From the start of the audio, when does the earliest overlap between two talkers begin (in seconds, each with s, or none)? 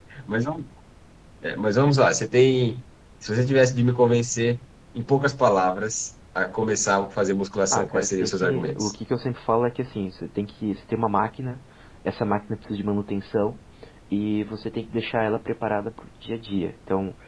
7.7 s